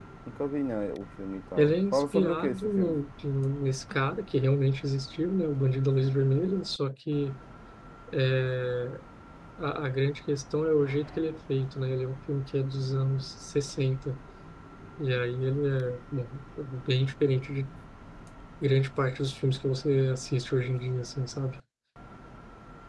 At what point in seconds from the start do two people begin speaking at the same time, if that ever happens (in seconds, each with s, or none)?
1.6 s